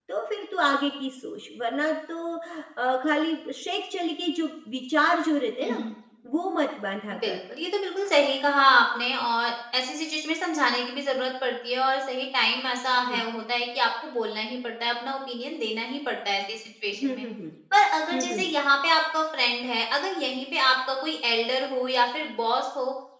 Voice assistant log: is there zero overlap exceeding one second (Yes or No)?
Yes